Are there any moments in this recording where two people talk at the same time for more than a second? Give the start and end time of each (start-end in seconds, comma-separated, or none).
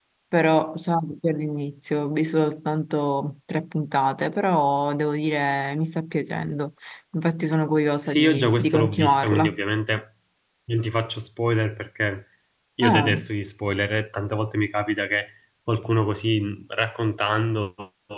8.1-9.6